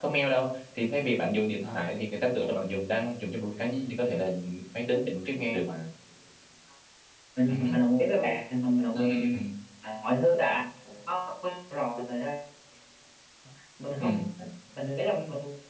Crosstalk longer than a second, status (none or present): none